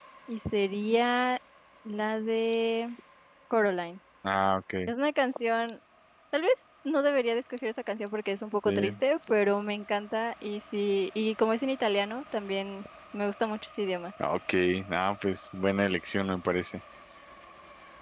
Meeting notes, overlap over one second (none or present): none